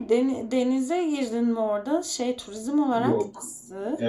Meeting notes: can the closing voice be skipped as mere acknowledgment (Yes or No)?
No